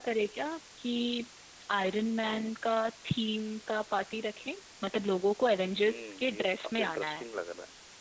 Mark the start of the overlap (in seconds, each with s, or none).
5.7 s